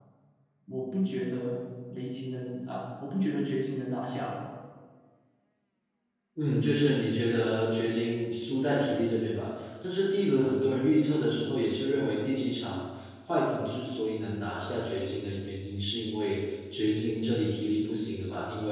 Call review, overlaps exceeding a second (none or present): none